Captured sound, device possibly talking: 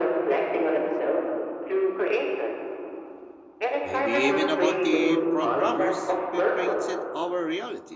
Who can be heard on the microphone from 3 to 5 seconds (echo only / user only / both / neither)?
both